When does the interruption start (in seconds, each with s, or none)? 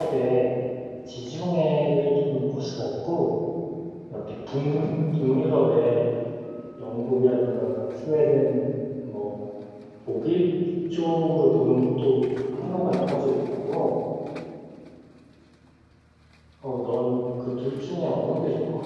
none